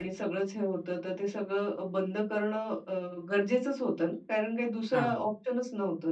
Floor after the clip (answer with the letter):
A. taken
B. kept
B